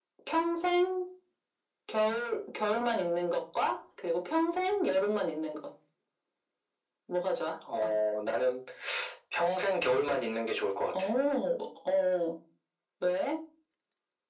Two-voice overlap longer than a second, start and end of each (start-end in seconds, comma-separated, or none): none